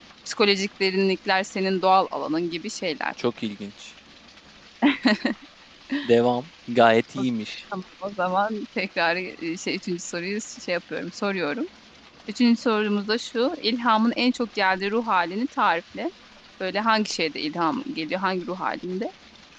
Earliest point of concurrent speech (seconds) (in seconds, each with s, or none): none